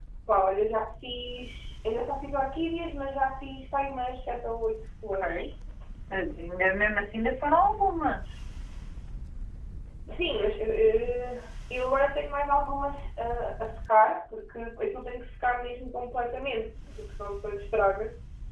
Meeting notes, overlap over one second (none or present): none